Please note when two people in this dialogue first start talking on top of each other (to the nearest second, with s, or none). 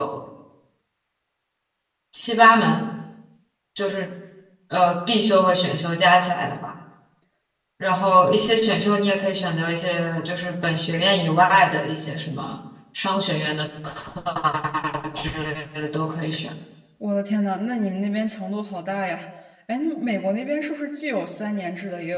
none